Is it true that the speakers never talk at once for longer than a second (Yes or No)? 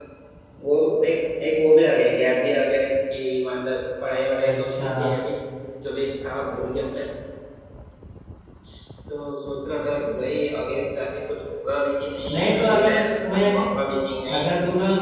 No